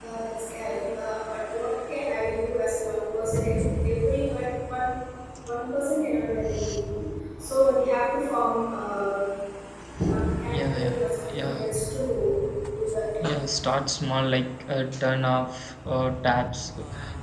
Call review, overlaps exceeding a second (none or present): present